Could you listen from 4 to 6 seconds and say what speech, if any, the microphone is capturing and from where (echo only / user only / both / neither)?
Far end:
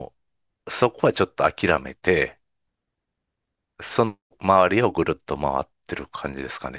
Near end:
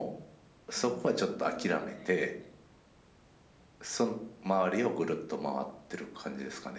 echo only